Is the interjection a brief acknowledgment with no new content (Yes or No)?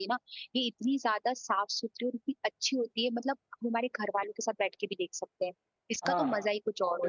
No